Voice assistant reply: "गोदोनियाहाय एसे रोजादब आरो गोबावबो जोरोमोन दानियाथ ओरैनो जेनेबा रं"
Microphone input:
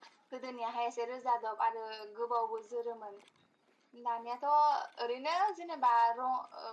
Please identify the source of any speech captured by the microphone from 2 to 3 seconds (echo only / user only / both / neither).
echo only